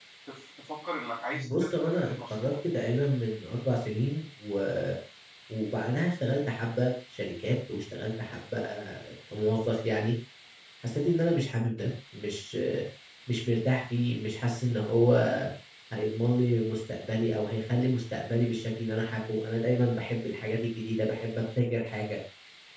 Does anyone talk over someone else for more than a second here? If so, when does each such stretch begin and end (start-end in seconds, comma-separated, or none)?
1.3-2.5